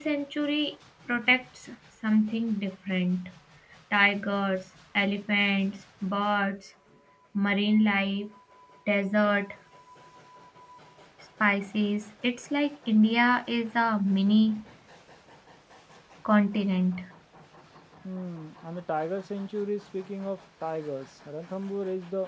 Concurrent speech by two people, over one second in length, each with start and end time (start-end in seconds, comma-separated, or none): none